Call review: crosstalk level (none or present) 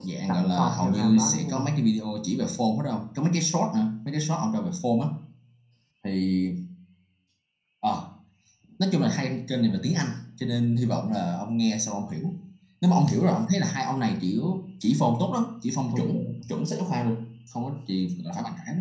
present